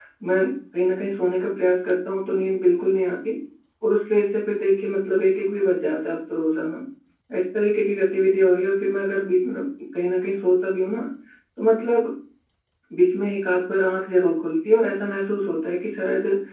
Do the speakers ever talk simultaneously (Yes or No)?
No